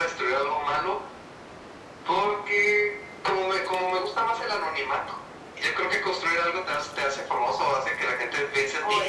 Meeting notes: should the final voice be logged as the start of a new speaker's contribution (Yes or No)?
No